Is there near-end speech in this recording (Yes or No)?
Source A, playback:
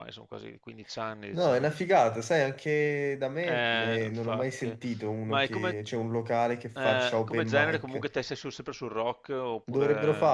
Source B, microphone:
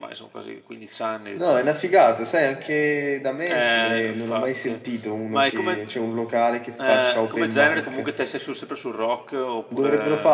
No